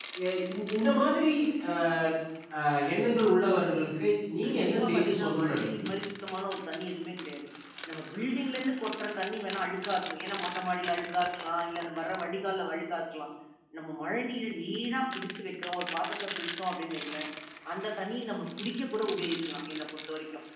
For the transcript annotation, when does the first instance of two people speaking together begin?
4 s

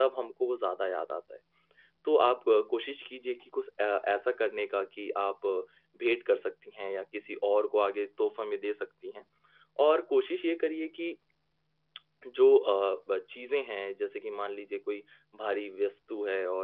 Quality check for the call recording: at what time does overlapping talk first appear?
none

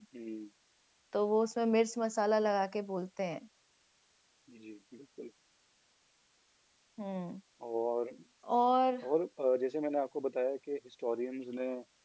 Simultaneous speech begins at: none

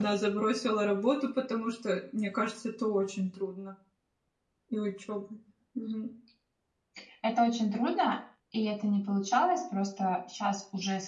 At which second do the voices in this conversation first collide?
none

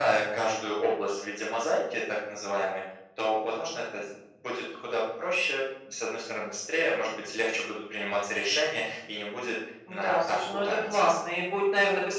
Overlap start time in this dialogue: 10 s

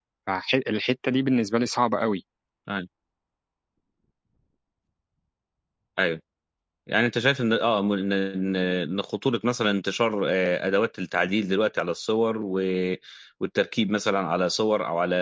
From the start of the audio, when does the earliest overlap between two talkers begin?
none

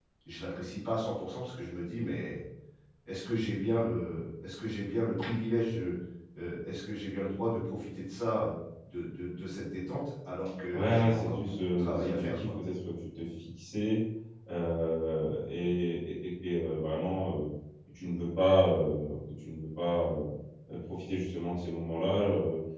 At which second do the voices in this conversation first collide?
11 s

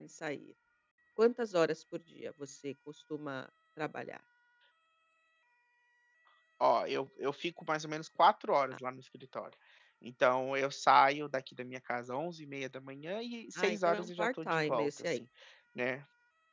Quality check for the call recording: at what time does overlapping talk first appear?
14 s

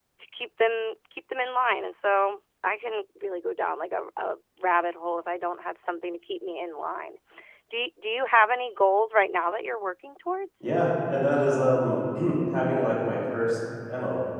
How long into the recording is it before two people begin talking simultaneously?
none

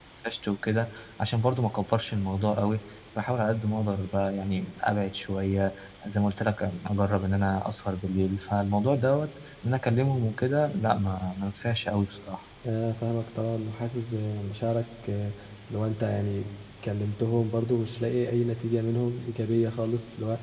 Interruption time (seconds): none

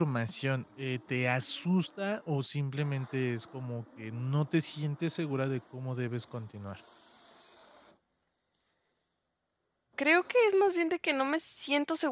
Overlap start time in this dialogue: none

